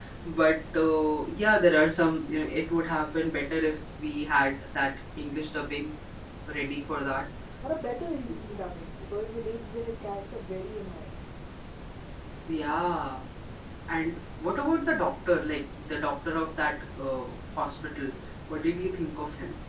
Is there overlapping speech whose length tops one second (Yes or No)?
No